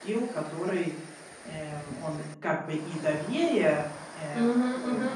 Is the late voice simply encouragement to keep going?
No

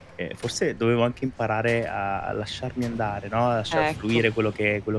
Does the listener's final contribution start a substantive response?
No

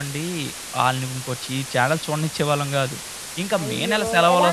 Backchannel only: No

